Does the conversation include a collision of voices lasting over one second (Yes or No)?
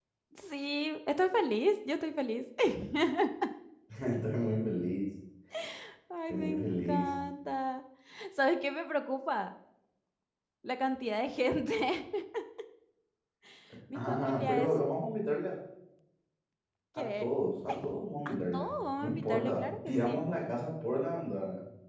Yes